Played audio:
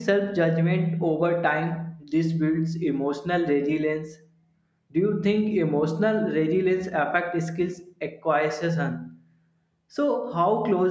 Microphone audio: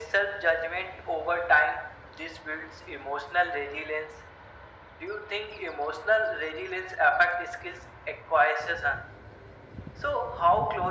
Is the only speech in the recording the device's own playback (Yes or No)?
Yes